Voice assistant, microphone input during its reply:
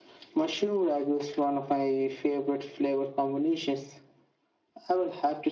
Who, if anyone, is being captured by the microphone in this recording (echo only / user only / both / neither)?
echo only